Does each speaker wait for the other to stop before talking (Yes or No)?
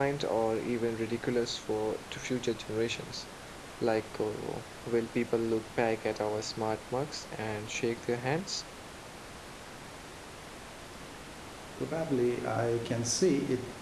Yes